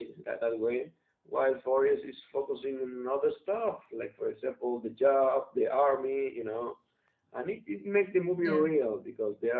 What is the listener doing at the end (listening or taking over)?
listening